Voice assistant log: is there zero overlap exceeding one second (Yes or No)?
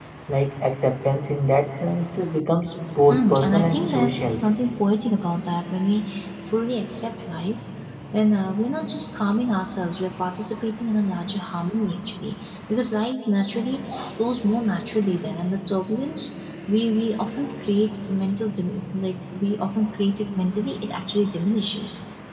No